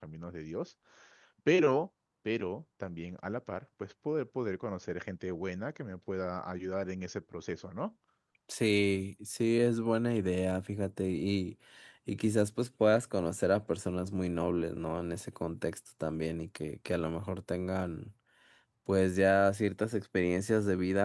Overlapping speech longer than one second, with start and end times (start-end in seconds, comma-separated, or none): none